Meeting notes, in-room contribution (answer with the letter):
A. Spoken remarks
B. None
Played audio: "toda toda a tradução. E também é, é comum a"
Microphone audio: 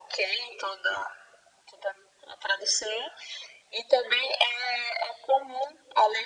B